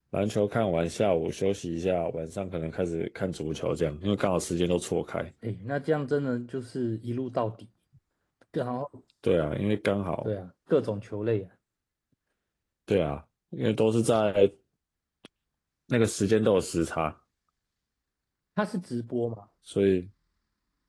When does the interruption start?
none

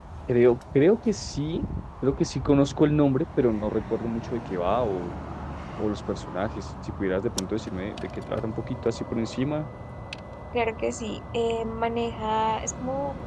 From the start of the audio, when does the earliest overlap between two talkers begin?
none

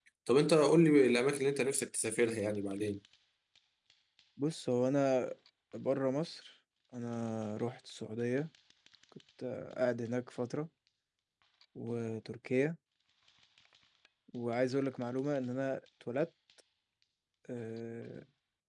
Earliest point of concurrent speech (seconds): none

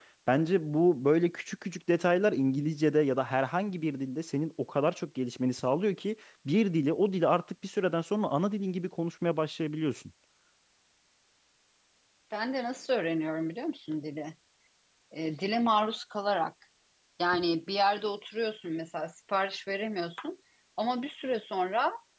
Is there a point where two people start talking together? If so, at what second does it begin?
none

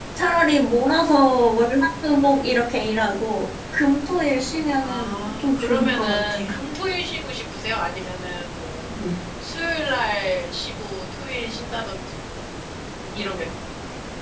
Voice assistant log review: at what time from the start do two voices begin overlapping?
4.8 s

